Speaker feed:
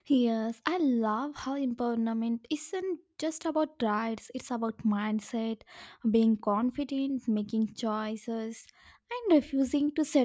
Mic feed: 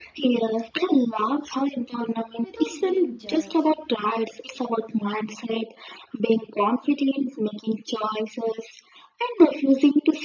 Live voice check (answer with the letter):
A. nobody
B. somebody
B